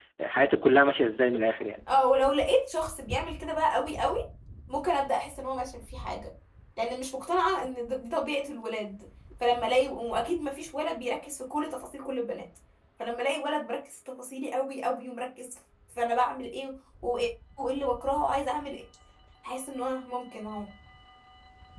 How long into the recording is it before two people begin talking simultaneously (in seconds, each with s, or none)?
none